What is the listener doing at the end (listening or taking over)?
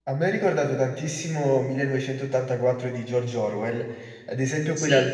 listening